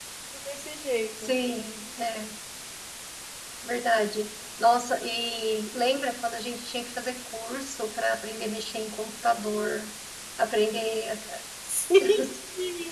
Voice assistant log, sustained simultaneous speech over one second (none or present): none